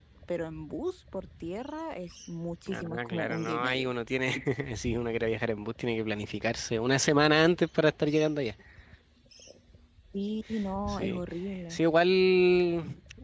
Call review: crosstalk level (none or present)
present